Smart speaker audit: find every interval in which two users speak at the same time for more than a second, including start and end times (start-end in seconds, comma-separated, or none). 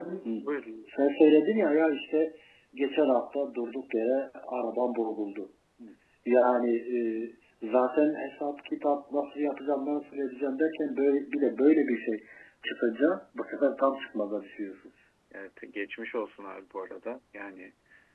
none